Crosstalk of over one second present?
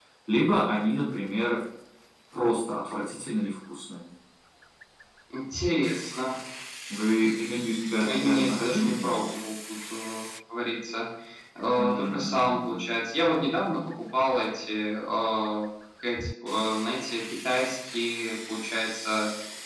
Yes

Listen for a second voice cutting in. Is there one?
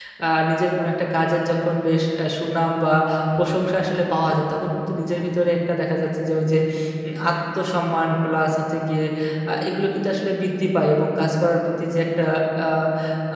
No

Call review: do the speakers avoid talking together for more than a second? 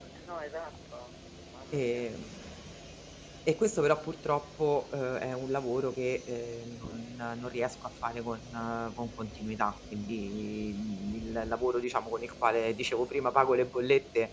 Yes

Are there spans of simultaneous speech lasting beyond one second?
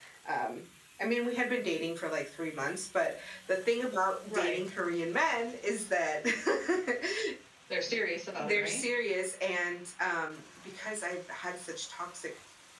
No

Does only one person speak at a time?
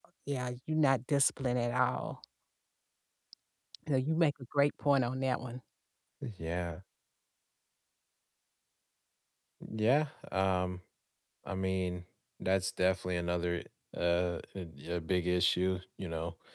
Yes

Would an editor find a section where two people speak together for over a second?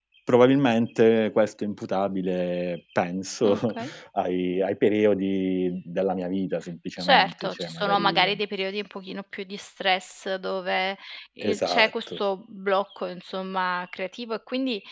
Yes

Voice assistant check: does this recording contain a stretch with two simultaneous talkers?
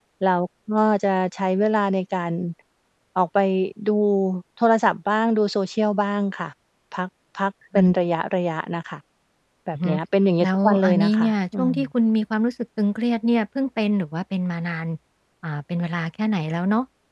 Yes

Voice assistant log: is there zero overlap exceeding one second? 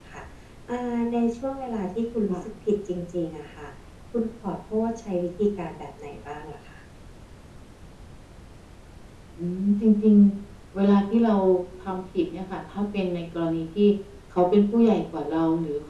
Yes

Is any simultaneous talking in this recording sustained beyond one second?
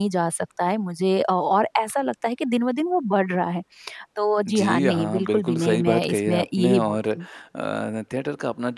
Yes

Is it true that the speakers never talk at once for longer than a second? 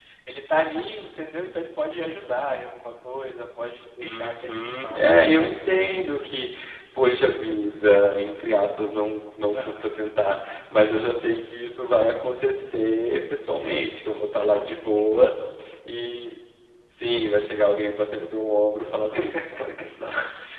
No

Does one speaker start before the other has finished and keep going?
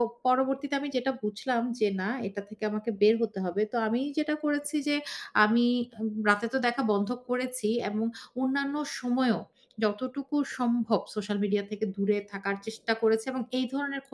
No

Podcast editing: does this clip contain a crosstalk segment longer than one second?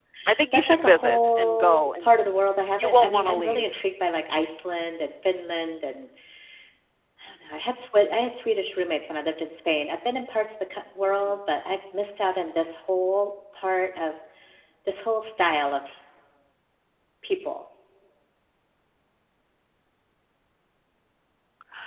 Yes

